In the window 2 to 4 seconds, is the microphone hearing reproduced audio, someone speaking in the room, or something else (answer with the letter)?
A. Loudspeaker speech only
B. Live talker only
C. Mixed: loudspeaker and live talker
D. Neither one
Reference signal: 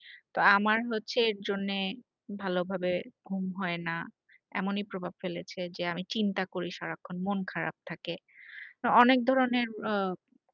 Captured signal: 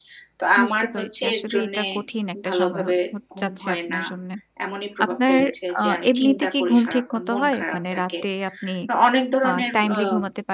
C